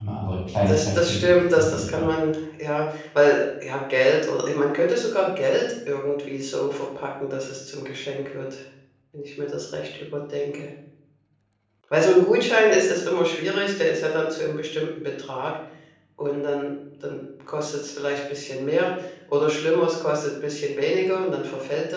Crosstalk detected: Yes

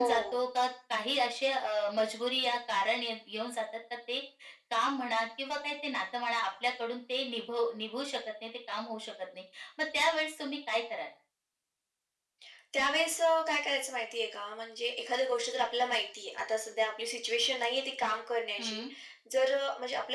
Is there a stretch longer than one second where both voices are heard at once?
No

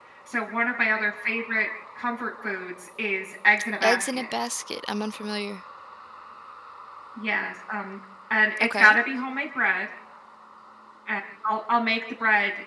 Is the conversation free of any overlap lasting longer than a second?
Yes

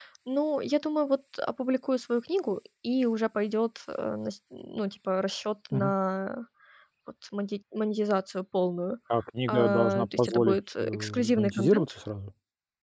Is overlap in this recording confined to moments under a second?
No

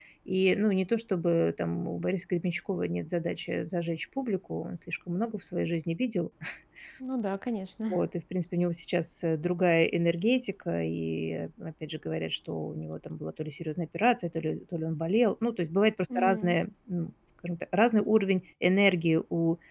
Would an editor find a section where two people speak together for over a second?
No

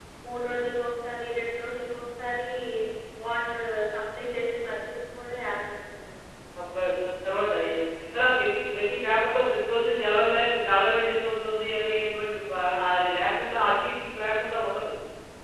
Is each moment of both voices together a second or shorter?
Yes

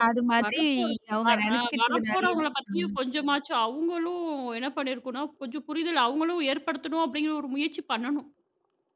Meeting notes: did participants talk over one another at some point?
Yes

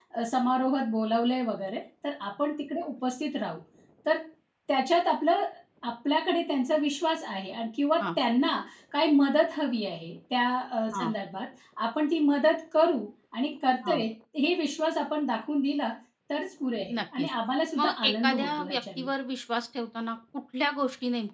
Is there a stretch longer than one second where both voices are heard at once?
Yes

